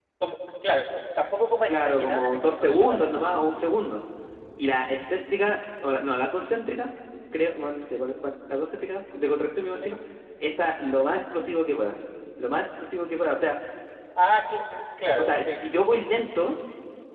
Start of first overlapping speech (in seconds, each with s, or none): 1.7 s